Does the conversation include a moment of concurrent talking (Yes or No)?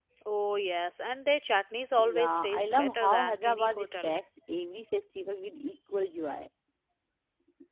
Yes